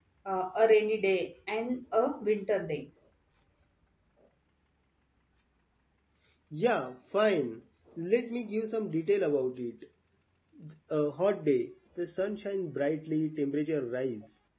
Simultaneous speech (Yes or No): No